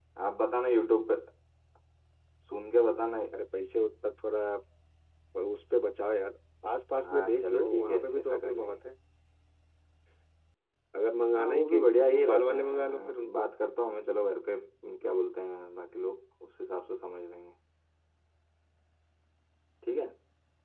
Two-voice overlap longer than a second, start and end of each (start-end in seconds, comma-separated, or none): 7.0-8.8, 11.4-13.5